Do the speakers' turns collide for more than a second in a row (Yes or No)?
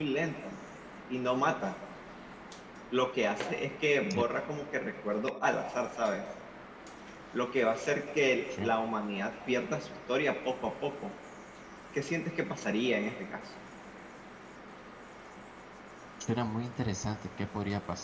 No